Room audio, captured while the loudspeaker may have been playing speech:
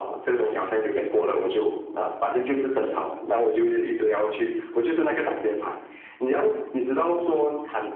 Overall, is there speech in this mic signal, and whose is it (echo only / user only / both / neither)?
echo only